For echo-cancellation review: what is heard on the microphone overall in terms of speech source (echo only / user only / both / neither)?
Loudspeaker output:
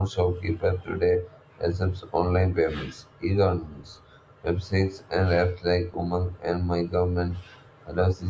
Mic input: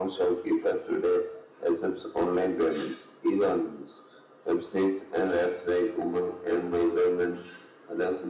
echo only